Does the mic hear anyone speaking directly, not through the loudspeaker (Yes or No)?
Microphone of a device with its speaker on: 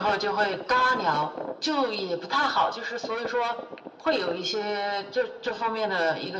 No